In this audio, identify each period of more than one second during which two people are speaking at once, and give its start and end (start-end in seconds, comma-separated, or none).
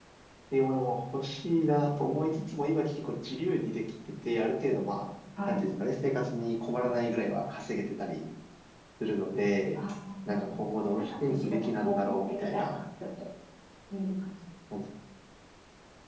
11.0-12.8